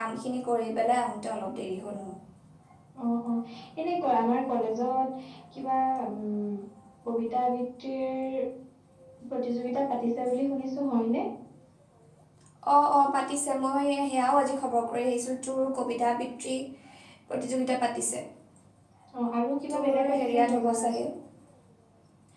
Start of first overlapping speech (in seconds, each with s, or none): 19.7 s